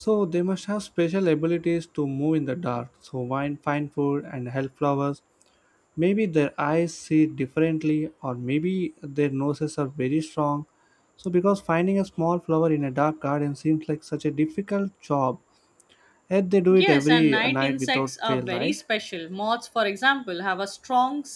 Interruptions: present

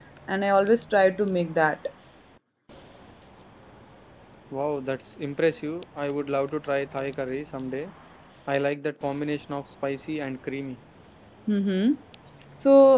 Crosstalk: none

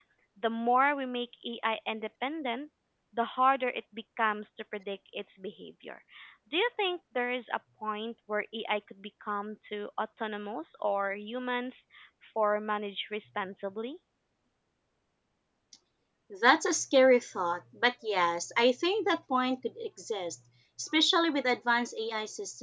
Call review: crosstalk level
none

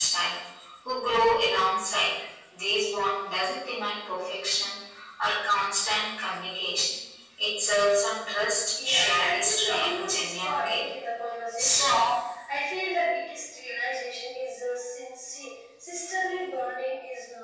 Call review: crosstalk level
present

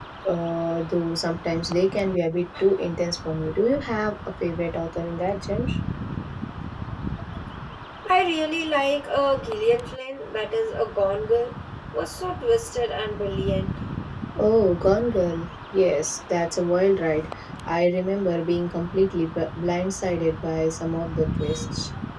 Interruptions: none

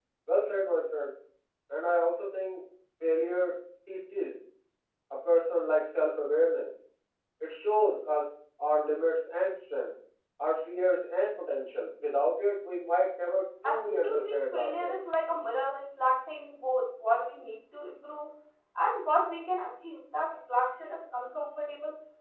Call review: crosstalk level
present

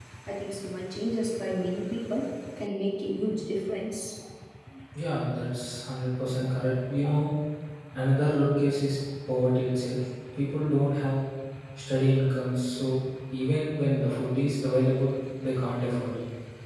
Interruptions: none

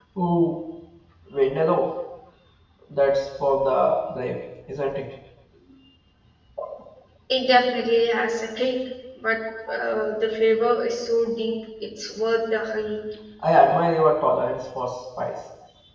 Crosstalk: none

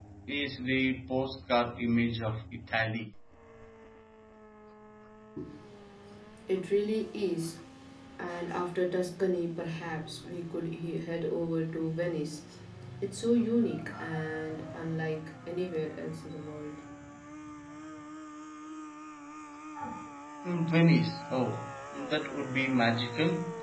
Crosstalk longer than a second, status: none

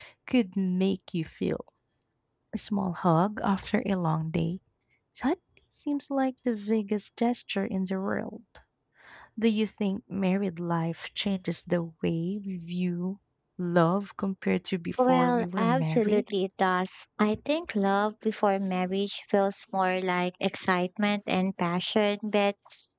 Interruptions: present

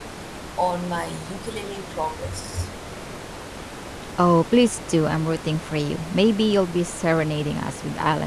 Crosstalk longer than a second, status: none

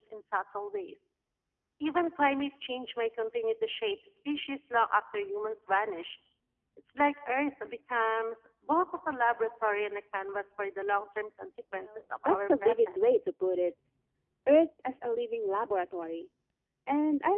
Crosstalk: present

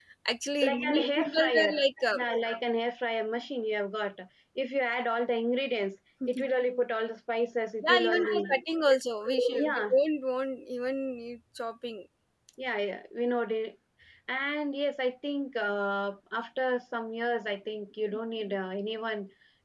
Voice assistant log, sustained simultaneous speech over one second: present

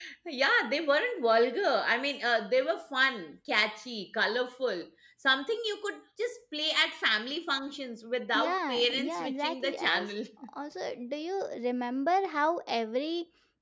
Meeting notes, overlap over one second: present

